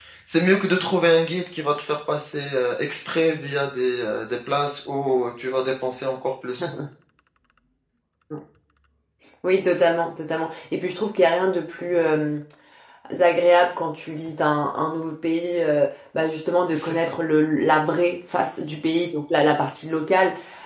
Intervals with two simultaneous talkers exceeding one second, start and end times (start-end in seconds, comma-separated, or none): none